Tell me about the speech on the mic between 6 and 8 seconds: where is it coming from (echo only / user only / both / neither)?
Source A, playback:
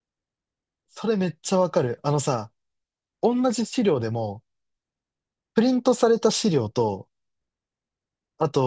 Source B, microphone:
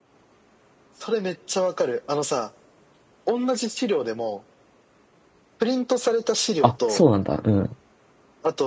both